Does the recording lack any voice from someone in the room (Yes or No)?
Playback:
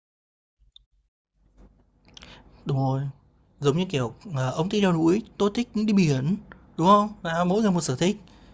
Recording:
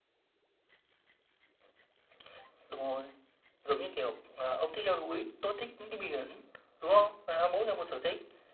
Yes